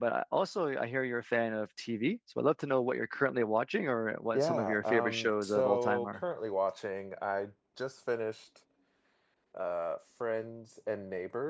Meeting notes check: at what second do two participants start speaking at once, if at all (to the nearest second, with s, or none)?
4 s